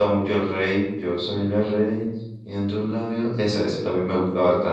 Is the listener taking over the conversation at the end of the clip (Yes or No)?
No